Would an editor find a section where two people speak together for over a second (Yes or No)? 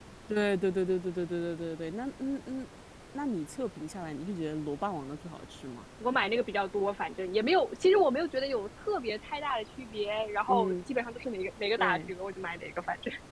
No